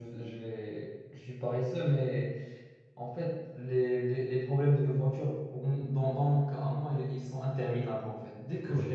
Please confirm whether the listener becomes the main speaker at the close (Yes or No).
No